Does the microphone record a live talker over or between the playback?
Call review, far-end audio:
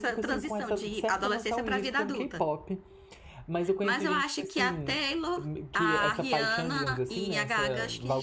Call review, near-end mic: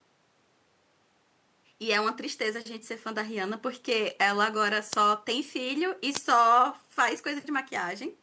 Yes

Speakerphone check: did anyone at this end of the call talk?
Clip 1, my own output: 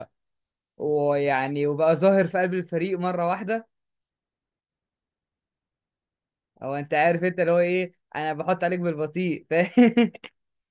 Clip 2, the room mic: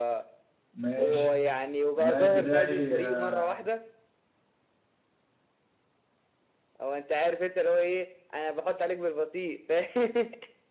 Yes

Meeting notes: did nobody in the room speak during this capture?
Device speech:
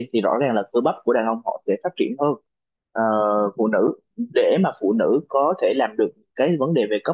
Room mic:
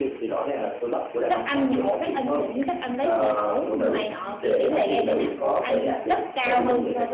No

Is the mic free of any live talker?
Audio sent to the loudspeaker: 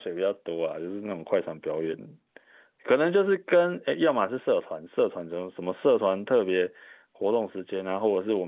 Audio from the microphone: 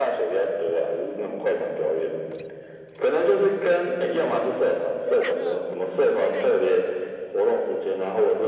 No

